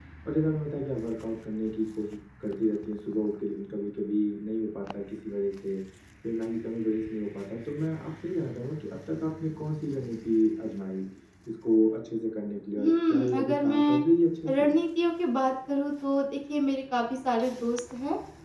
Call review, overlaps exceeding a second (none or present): present